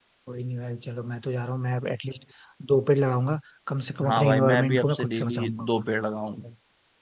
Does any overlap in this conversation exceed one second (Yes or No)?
Yes